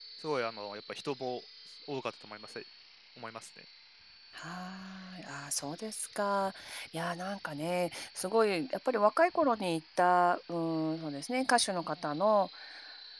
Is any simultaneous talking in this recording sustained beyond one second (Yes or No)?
No